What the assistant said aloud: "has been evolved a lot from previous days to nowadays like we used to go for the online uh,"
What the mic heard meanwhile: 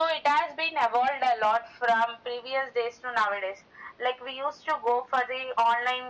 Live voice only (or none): none